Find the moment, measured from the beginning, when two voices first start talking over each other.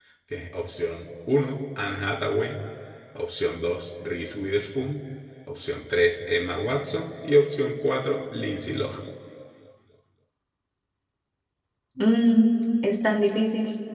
none

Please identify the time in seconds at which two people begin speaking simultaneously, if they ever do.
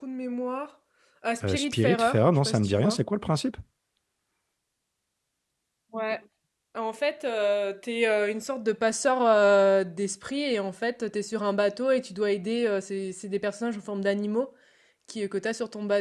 1 s

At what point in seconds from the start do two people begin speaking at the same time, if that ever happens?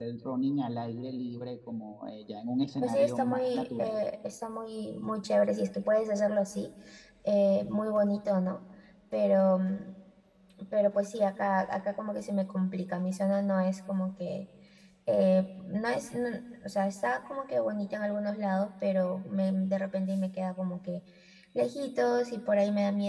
3 s

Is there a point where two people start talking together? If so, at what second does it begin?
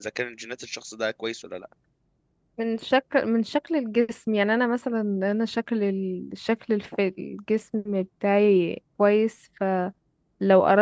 none

